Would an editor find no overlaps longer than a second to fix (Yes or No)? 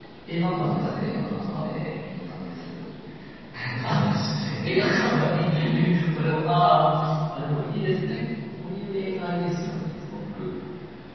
No